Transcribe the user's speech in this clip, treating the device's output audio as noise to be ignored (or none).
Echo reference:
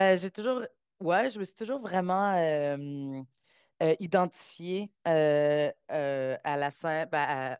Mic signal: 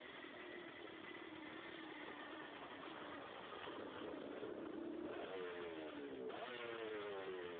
none